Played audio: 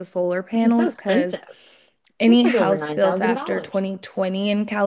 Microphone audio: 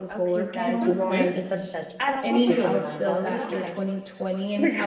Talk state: both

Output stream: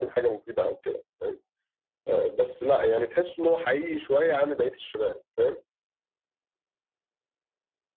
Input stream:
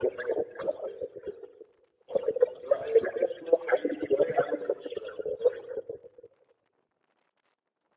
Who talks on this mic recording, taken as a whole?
echo only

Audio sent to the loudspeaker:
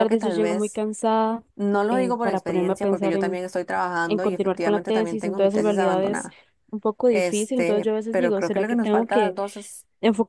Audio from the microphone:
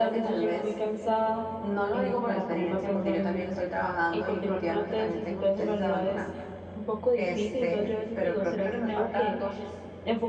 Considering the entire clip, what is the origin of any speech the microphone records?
echo only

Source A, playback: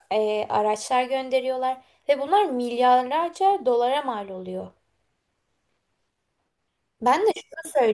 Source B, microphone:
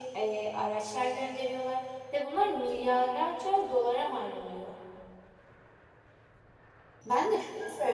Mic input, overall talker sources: echo only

